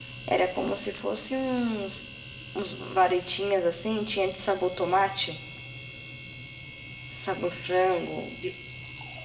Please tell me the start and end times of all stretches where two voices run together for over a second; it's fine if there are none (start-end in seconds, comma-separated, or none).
none